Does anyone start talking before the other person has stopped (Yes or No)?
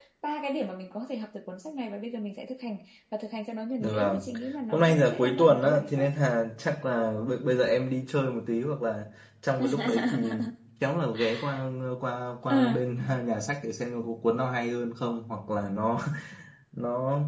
Yes